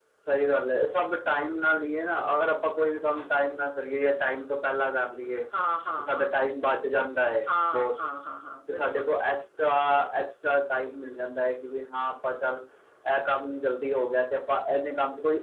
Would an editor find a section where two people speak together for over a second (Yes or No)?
No